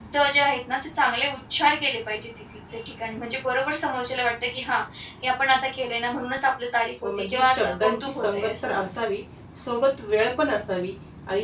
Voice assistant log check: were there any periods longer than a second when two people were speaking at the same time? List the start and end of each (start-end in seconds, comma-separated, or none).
7.0-8.8